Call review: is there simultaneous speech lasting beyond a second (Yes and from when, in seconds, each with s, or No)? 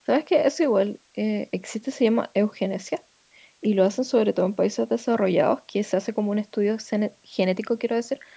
No